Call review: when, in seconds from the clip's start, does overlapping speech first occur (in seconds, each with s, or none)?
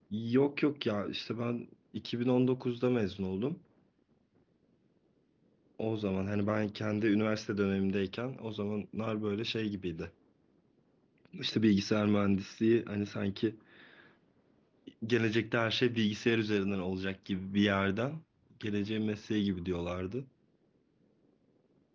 none